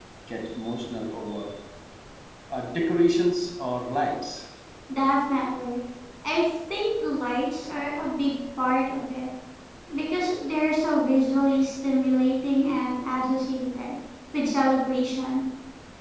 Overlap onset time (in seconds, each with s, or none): none